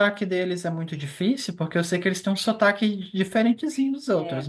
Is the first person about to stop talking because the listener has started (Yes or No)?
Yes